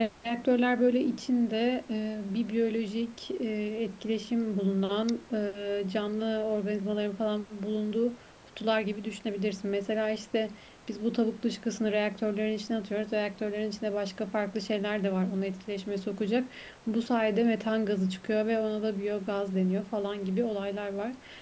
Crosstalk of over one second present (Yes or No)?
No